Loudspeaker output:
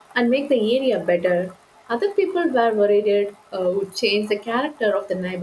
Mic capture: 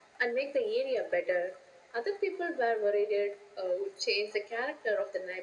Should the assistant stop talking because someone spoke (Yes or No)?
No